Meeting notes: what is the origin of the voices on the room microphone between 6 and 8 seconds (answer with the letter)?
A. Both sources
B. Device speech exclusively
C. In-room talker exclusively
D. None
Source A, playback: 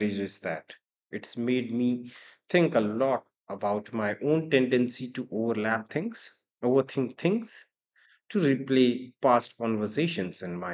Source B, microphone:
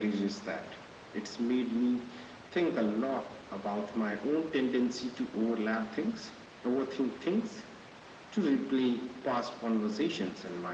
B